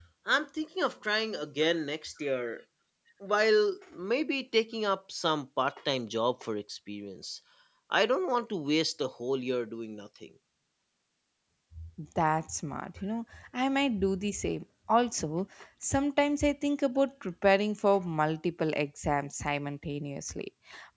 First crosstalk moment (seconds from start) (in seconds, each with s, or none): none